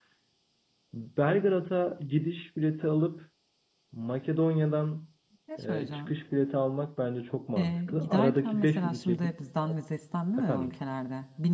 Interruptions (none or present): present